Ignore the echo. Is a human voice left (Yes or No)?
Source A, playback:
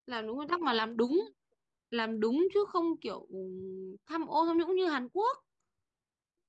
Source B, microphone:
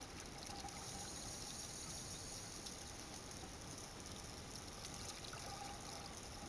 No